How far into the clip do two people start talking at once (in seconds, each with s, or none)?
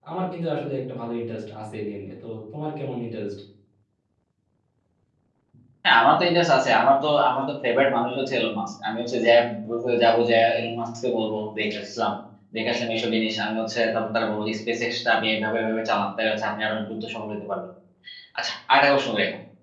none